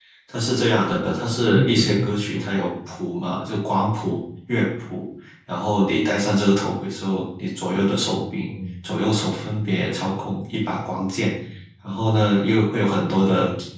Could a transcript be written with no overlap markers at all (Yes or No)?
No